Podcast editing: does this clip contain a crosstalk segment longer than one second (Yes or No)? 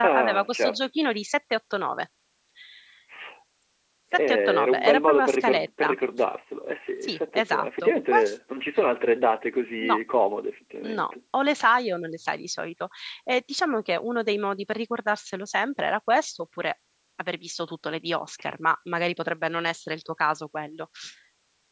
Yes